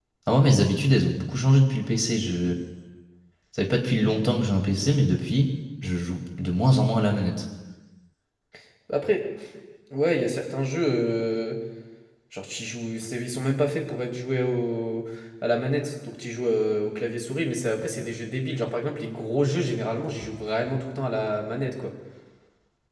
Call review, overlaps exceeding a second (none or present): none